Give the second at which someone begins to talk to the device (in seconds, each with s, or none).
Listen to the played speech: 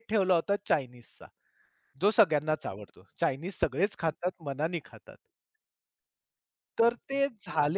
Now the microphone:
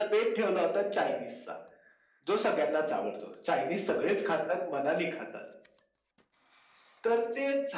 none